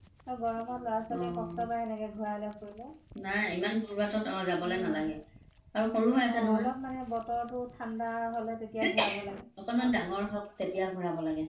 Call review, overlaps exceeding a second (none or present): none